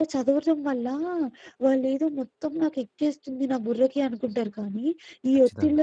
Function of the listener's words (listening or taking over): listening